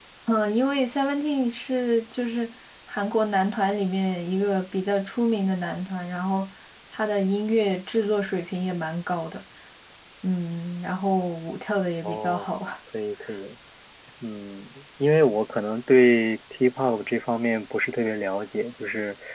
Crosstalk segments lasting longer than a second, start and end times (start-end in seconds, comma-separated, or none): none